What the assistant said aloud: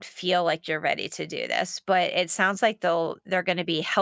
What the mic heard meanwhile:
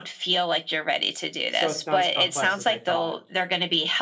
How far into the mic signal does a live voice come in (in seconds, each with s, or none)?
1.5 s